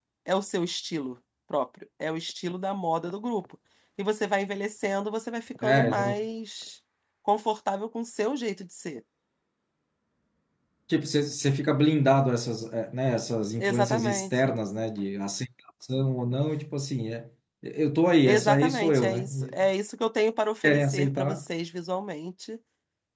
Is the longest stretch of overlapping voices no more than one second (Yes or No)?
No